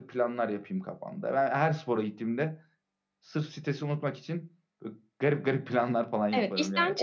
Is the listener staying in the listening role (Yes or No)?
No